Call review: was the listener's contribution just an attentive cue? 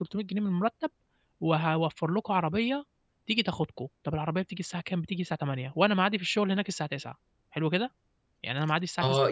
No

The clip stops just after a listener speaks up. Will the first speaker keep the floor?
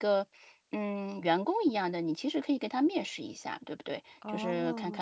Yes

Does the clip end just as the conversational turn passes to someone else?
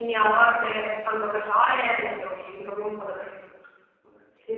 Yes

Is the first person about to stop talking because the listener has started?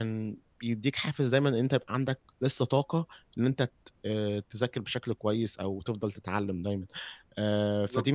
Yes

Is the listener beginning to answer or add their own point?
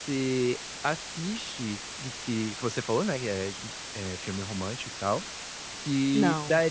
No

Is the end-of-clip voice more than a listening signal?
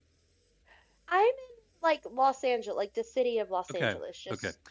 Yes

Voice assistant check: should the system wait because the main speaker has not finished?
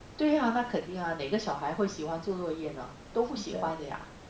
No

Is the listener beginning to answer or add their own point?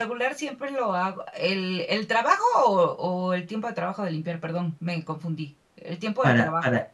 Yes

